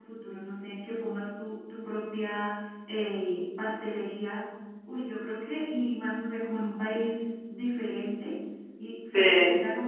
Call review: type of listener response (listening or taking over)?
listening